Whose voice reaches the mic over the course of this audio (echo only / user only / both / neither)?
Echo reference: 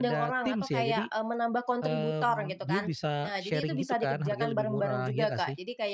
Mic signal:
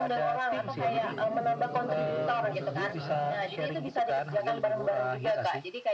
both